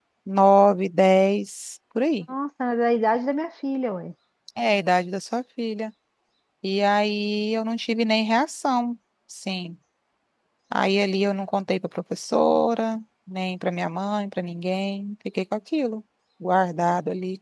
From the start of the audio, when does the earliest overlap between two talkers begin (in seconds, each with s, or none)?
none